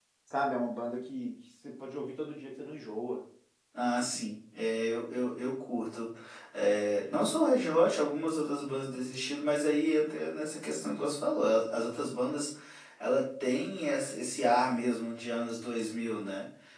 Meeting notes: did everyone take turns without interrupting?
Yes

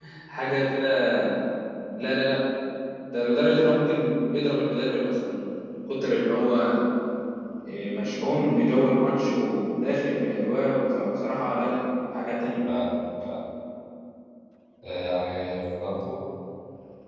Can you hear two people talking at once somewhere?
No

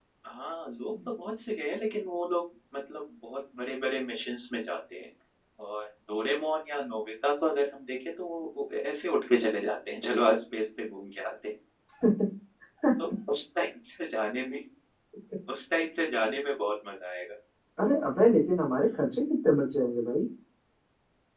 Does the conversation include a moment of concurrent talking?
No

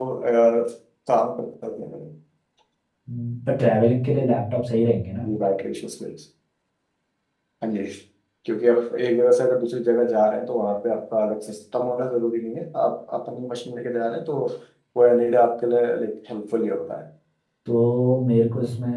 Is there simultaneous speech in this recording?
No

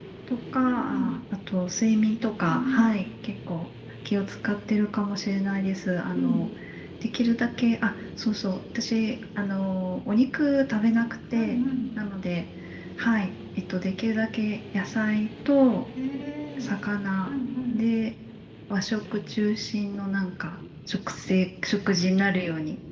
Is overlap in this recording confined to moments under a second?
Yes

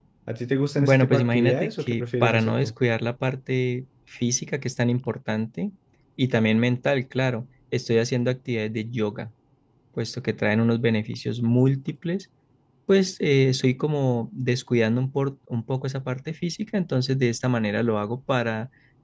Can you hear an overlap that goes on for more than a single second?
Yes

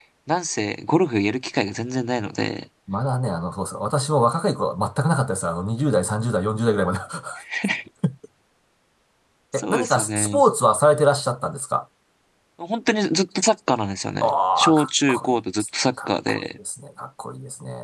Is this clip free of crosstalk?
No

